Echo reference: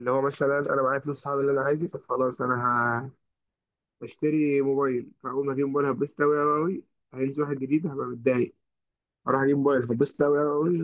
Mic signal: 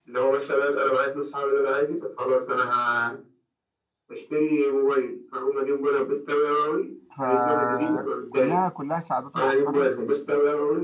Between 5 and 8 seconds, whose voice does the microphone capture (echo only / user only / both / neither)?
both